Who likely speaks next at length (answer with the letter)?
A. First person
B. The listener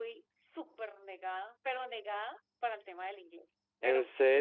A